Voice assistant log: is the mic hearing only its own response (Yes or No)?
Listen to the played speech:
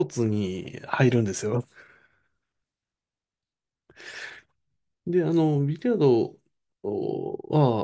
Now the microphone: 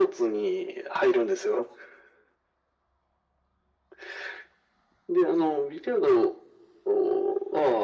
Yes